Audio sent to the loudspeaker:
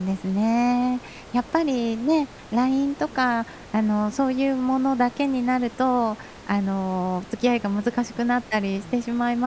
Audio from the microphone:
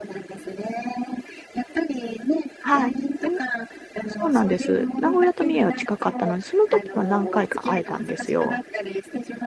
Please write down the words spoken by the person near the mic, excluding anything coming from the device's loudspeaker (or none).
はい。でもそうなんです。名古屋と三重は近かったので、その時は何回か会えたんですよ。